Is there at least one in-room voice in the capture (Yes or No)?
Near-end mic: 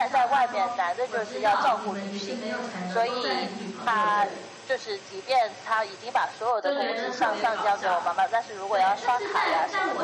Yes